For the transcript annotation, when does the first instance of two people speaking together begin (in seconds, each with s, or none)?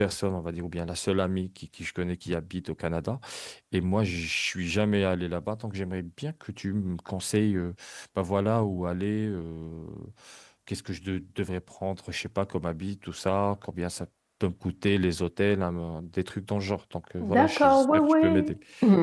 17.2 s